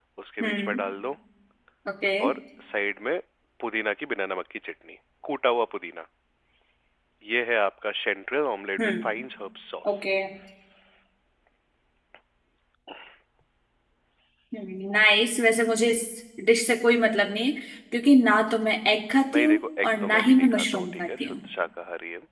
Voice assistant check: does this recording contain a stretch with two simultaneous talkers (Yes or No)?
Yes